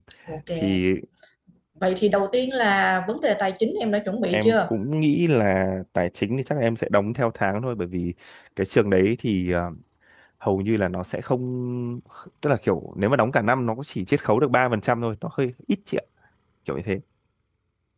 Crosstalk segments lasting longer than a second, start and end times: none

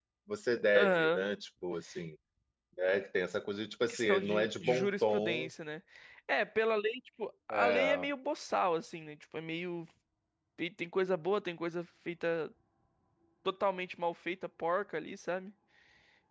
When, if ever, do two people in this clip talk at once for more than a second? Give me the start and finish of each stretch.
3.8-5.5

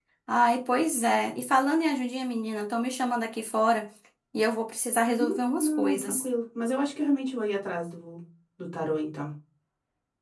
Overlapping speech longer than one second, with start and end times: 5.0-6.3

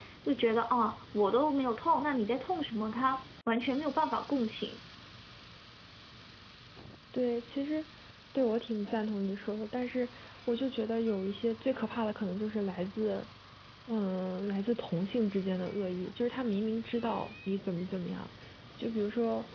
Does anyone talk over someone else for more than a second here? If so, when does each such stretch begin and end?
none

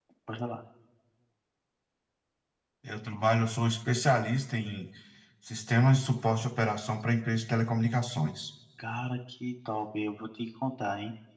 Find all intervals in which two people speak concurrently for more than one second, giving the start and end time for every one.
none

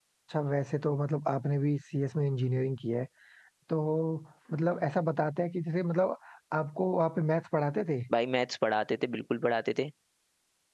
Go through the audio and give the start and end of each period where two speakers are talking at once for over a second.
none

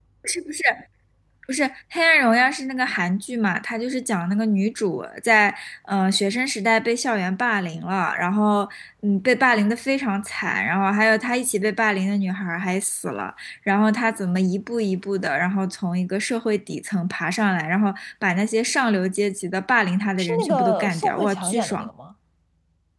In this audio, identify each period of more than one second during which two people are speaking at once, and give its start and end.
20.2-21.9

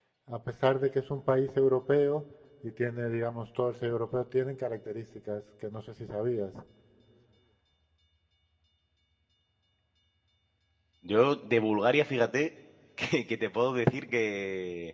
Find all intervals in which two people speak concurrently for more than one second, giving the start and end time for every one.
none

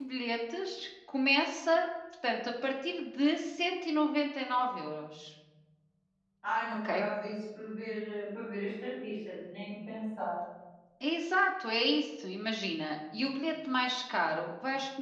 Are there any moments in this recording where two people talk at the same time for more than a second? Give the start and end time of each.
none

